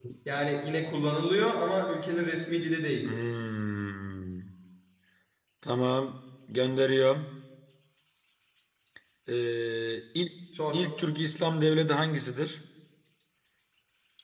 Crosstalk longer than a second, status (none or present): none